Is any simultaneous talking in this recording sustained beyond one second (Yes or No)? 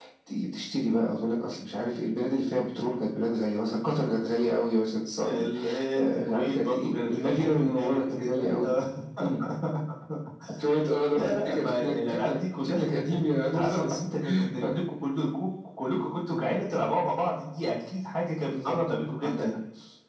Yes